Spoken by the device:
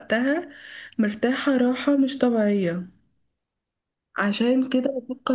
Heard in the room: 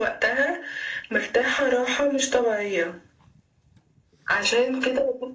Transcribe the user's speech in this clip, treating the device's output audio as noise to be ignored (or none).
none